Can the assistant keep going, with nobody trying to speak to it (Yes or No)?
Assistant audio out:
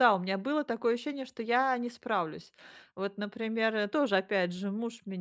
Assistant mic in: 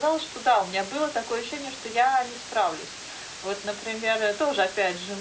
Yes